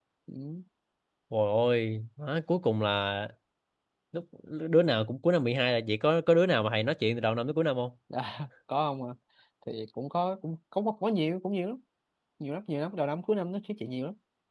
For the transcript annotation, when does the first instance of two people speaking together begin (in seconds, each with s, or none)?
none